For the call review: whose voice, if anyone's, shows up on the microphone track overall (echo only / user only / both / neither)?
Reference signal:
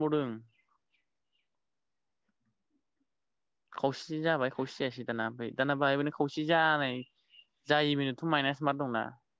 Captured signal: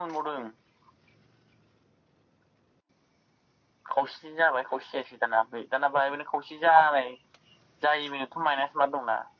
echo only